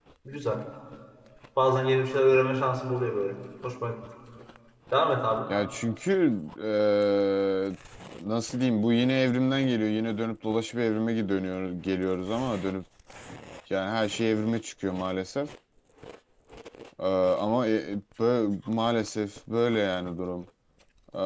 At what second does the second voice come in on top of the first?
none

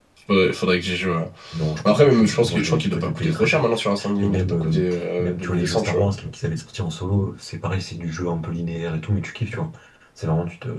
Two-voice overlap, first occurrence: 1.9 s

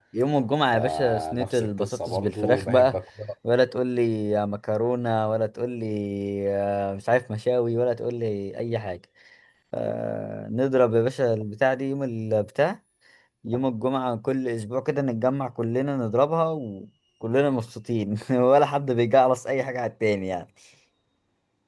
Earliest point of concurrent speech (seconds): 0.7 s

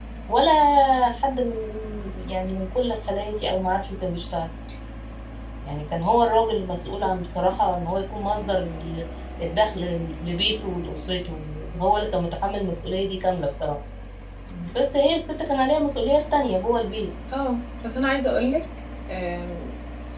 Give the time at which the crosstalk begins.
none

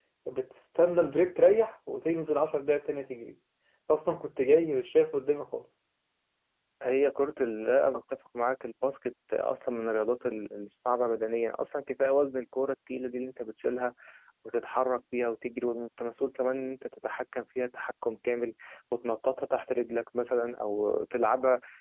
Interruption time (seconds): none

